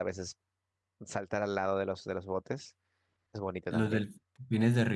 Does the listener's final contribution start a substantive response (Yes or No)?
Yes